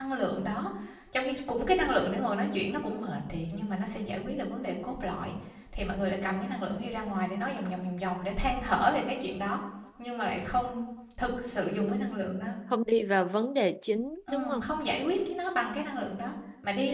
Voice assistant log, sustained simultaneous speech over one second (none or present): none